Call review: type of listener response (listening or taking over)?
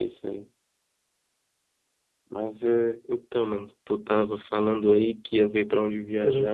listening